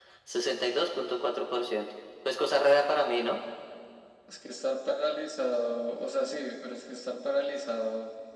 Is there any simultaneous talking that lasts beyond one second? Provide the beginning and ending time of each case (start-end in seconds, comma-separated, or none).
none